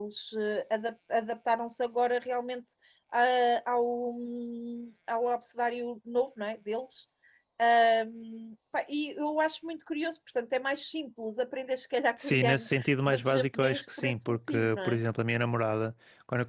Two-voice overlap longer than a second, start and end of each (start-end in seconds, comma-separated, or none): 12.2-15.0